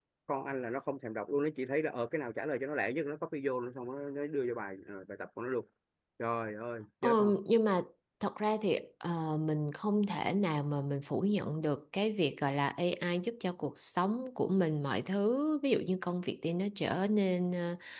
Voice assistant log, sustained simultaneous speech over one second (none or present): none